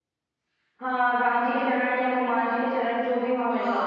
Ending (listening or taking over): taking over